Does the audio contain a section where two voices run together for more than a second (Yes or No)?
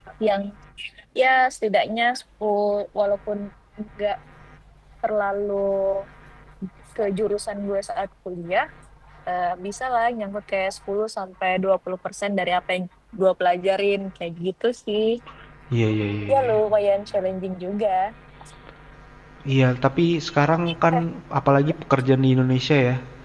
No